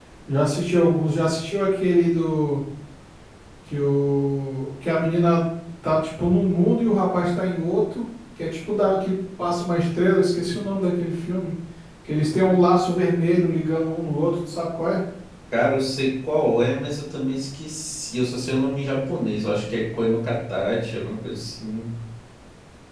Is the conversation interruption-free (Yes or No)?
Yes